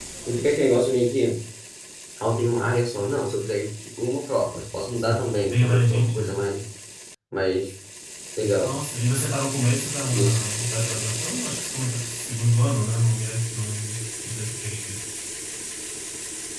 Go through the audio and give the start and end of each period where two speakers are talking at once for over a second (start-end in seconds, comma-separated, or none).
5.0-6.4